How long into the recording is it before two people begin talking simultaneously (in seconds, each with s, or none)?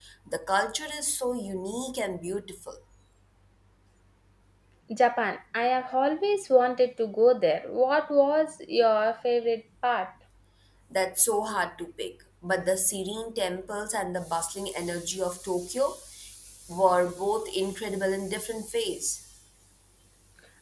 none